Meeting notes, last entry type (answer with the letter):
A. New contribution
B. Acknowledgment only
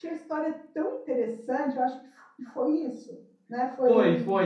A